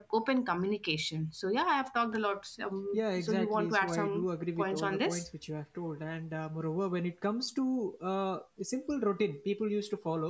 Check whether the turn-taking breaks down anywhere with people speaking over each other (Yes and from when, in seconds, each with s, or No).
Yes, from 2.9 s